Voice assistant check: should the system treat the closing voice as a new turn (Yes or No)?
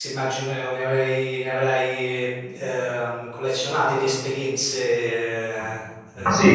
Yes